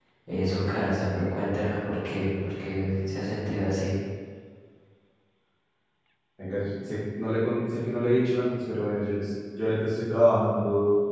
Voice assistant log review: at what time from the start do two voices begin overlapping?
none

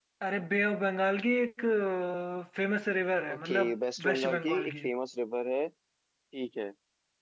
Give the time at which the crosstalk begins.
3 s

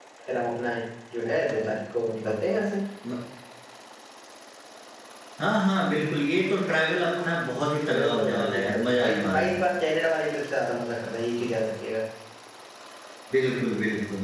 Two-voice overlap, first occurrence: 8 s

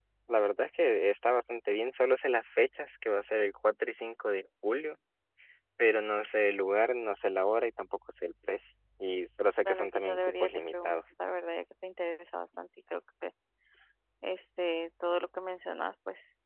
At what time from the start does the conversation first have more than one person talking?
10 s

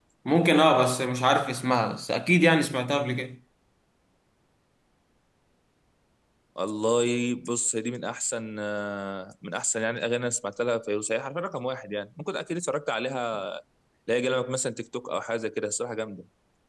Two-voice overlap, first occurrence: none

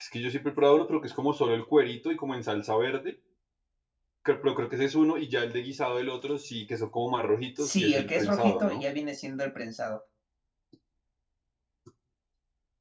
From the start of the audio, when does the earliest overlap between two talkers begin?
8 s

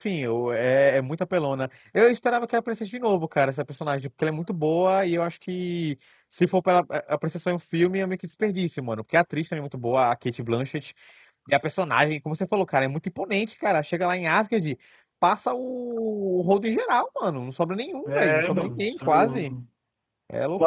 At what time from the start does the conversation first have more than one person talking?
18 s

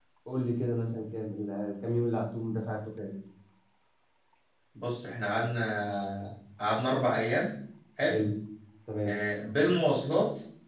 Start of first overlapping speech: none

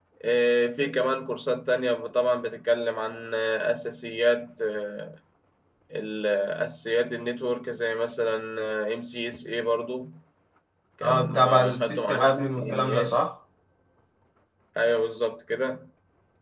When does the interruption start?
11 s

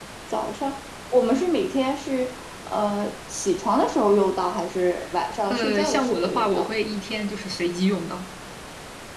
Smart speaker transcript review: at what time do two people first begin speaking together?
6 s

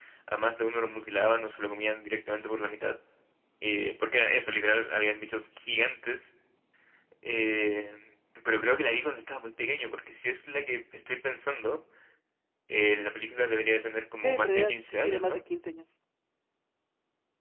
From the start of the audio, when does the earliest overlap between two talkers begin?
14 s

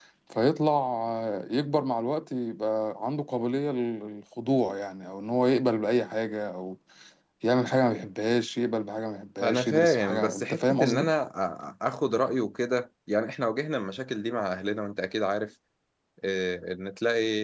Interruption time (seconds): 9 s

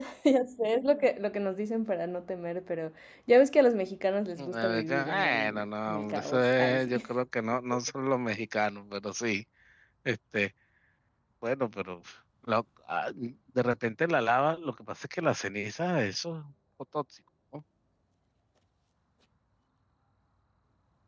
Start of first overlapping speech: 4 s

